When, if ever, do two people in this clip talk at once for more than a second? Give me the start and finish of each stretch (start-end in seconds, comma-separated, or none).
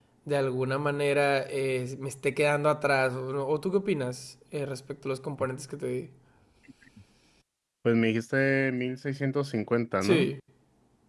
none